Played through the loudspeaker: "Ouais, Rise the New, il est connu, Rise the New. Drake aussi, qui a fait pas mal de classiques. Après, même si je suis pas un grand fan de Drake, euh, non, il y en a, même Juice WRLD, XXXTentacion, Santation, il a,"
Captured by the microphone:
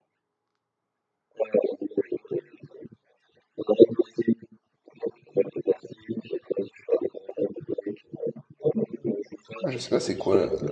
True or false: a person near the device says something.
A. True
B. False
A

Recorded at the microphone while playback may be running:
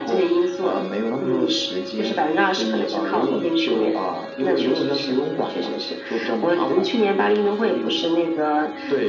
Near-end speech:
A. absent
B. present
A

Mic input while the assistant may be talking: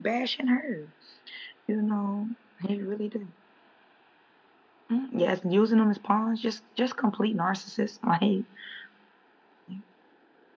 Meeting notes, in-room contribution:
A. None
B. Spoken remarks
A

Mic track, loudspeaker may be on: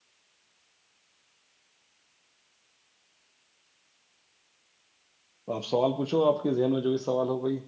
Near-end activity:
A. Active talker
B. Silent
A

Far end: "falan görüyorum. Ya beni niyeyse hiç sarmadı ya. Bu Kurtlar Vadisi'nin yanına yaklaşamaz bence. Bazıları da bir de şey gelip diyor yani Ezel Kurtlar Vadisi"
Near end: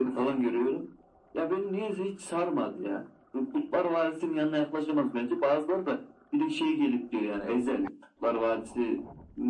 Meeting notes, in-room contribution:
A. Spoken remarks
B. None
B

